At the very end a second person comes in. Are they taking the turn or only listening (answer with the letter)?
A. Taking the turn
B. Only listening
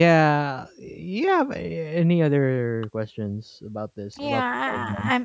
A